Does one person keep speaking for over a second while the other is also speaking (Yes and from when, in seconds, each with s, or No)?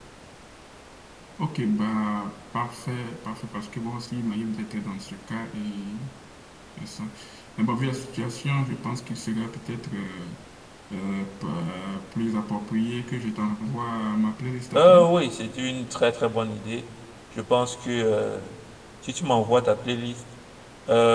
No